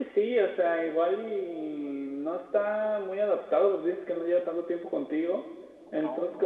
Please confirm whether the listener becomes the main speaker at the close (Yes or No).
No